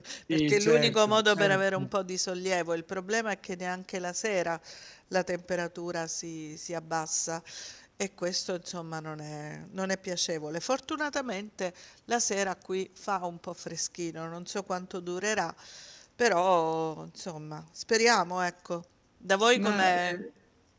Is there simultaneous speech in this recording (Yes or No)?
Yes